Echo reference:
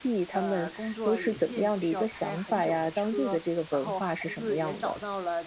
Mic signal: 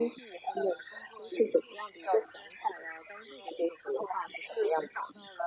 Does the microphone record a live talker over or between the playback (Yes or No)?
No